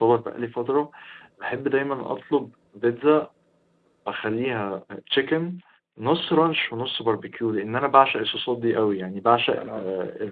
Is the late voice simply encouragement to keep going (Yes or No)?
Yes